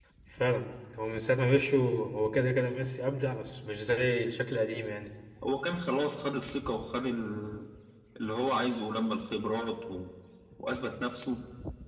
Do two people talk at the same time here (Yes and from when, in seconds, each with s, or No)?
No